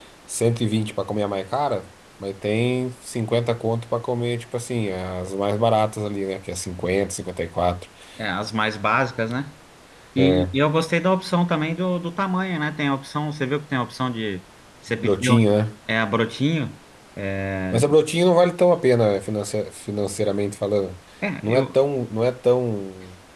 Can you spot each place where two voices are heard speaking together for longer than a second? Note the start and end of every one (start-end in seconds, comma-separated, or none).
none